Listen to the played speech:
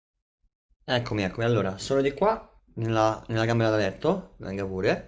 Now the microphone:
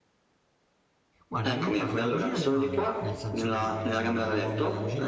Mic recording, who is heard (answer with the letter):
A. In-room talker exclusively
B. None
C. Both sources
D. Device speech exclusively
C